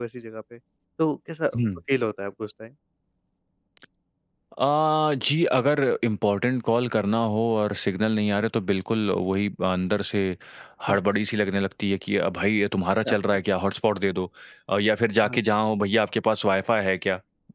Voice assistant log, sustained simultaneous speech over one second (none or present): none